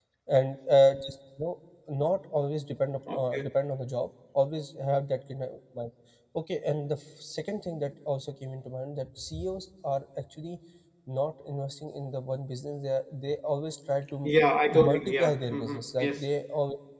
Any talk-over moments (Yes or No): Yes